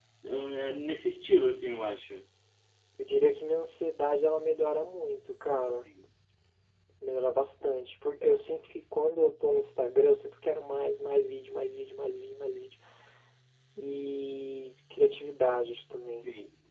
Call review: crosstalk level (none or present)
none